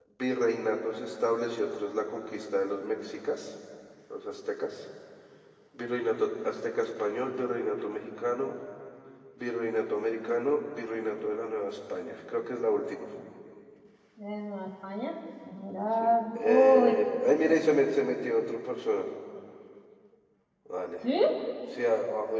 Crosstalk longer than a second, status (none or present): present